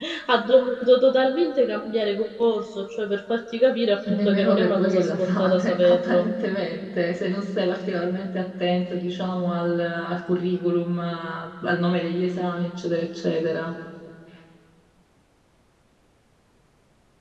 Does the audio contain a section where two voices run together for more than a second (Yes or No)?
Yes